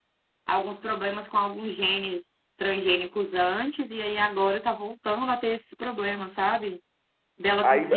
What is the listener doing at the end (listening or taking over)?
taking over